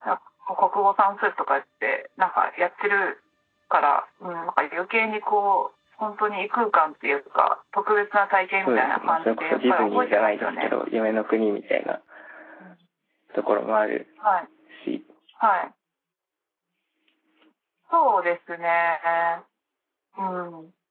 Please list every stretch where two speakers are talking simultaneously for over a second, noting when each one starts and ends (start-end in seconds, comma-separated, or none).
8.6-10.7